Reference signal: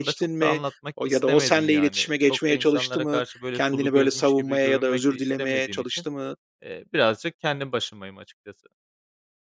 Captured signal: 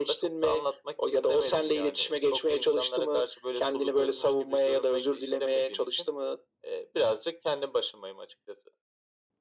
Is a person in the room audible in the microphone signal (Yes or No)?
No